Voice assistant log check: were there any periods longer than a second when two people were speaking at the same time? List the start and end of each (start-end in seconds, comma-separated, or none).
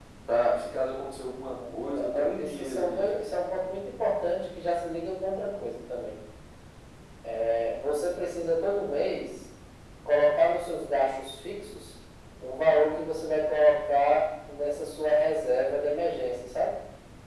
1.5-3.3